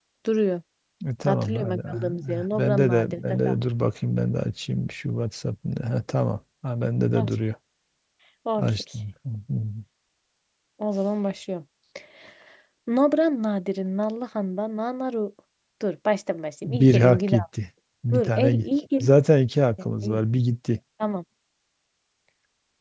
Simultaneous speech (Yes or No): Yes